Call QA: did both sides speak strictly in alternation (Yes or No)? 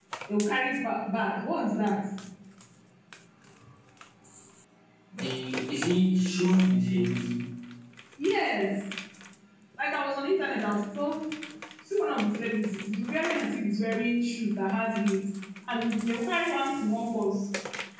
Yes